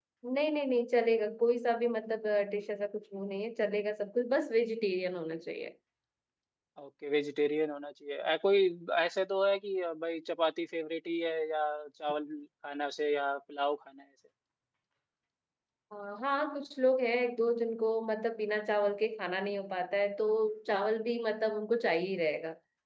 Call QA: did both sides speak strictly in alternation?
Yes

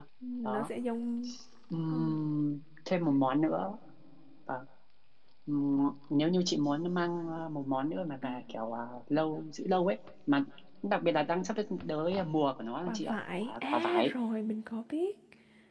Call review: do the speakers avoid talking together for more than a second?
No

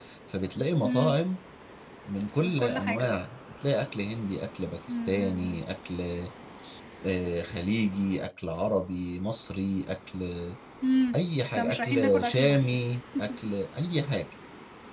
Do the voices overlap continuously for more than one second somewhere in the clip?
Yes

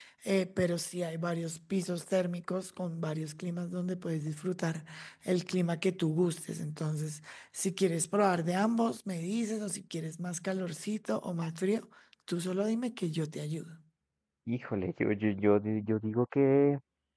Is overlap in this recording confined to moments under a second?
Yes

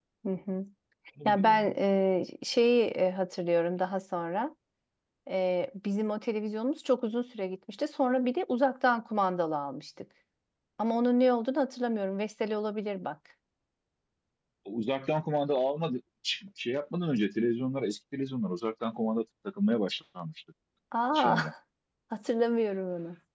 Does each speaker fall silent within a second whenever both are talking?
Yes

